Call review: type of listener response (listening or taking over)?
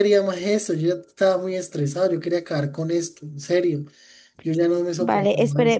taking over